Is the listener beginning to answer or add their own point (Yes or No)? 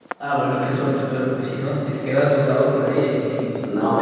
Yes